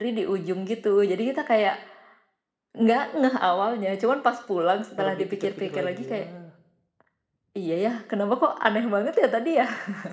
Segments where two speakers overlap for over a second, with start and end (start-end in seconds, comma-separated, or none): 5.0-6.3